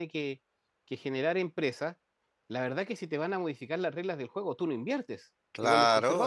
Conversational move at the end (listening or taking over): taking over